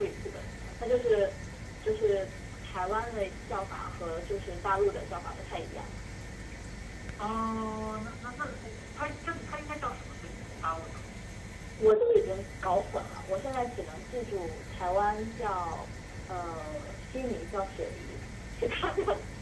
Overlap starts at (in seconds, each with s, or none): none